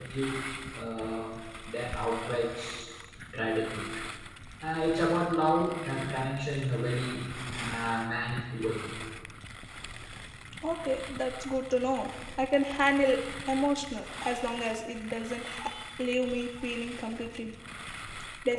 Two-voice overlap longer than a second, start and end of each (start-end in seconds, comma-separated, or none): none